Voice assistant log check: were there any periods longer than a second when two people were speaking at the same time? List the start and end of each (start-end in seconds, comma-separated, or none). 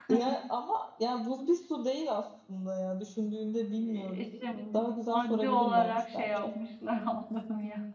5.1-6.5